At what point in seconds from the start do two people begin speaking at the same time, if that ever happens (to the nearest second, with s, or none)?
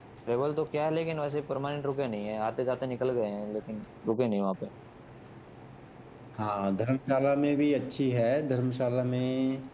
none